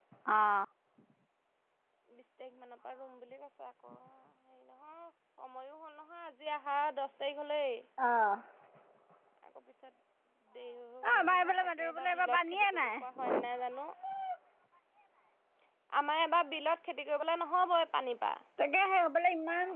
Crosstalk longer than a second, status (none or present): present